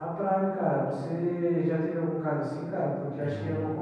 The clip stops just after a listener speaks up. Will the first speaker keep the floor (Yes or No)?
Yes